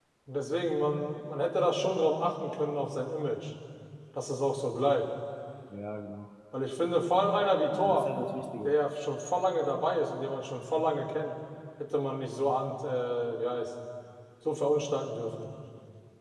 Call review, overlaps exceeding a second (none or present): none